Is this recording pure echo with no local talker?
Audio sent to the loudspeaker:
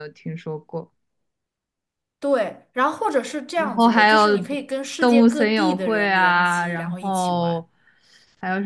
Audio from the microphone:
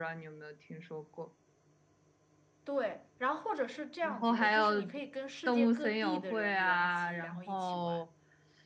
Yes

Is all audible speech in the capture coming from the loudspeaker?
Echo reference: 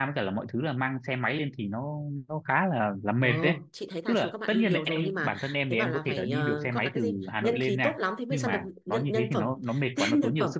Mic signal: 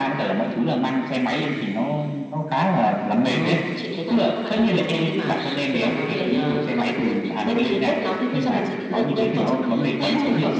No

